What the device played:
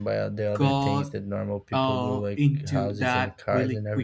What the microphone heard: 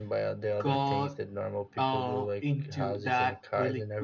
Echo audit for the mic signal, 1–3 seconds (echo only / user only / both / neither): echo only